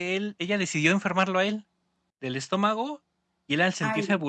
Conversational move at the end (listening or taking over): listening